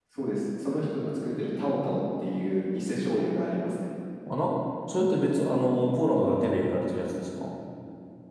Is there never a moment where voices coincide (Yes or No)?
Yes